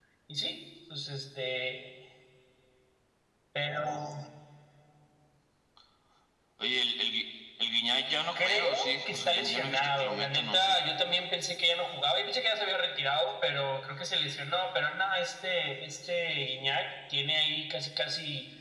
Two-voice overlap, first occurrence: 8 s

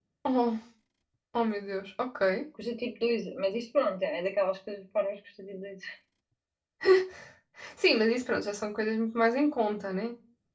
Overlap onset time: none

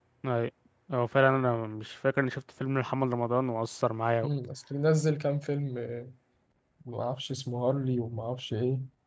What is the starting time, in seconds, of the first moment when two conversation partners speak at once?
none

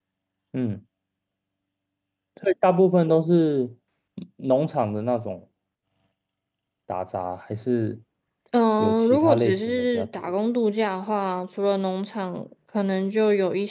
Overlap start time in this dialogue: 9 s

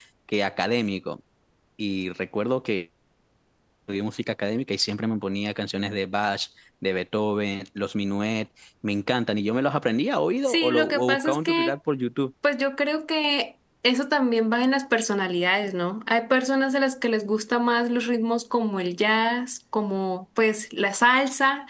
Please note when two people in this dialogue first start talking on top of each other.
10 s

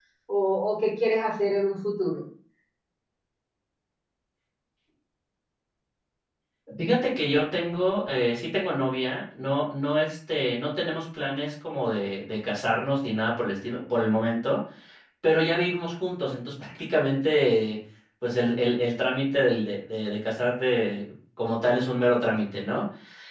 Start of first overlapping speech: none

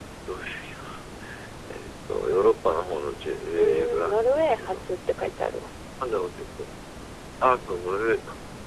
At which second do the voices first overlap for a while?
4 s

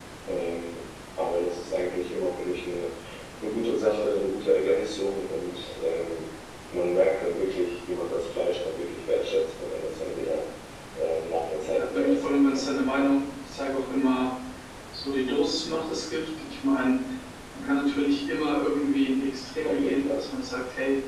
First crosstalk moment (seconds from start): 12 s

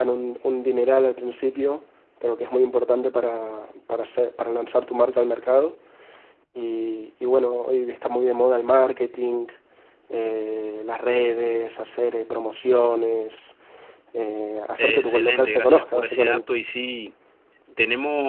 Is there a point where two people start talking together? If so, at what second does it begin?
15 s

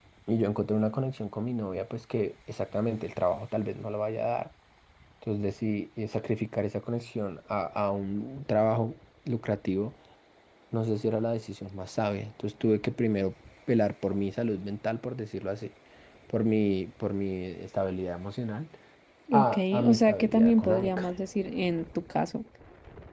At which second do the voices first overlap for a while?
19 s

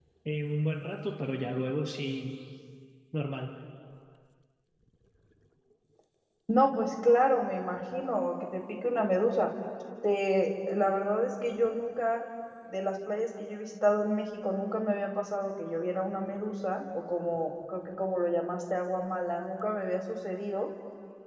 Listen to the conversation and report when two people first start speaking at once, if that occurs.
none

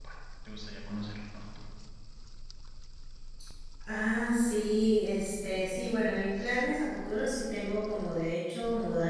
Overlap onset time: none

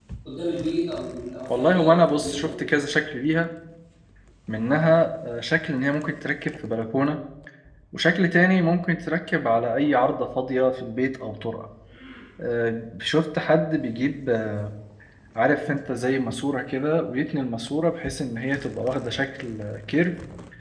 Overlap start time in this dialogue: 1 s

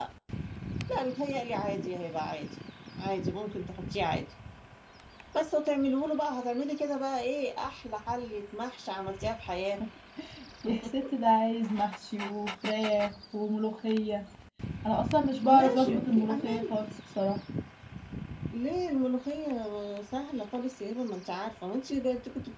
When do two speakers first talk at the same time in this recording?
15 s

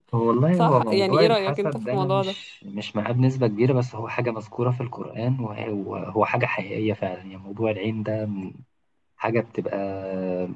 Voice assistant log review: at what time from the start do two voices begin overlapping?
1 s

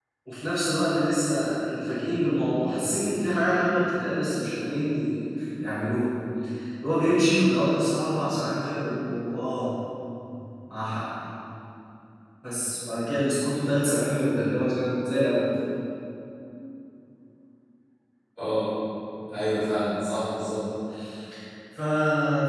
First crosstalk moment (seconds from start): none

